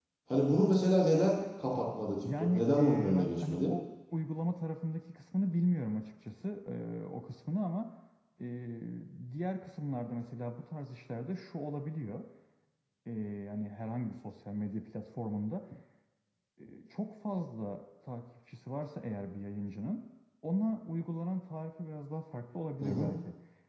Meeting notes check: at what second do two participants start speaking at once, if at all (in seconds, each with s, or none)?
2.2 s